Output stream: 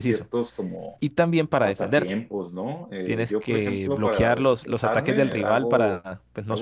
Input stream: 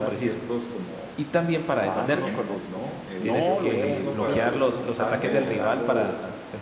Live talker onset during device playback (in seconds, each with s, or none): 1.8 s